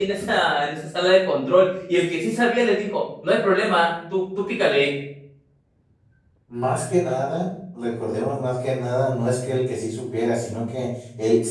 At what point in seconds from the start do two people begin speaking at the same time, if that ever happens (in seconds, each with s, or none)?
none